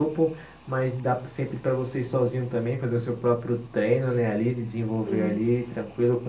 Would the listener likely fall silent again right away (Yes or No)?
Yes